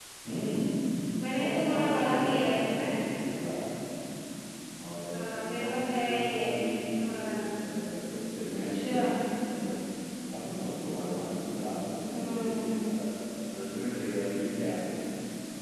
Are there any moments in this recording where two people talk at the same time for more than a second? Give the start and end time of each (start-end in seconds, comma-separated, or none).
1.4-2.9, 5.1-6.4